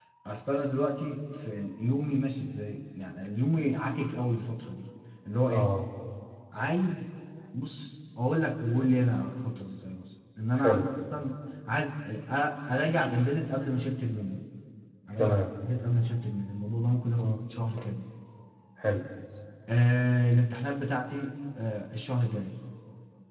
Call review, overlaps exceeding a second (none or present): none